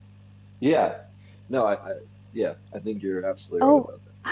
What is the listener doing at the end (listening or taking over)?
taking over